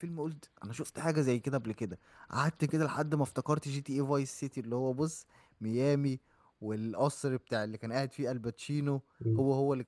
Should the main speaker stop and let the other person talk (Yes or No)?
Yes